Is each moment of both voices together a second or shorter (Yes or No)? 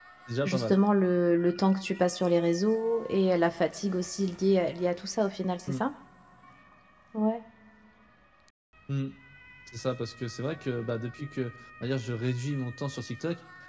Yes